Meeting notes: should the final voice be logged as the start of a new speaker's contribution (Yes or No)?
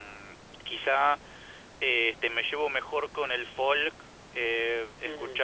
Yes